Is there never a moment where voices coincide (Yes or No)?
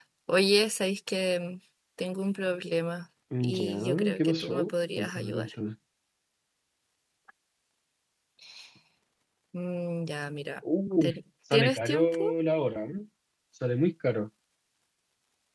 No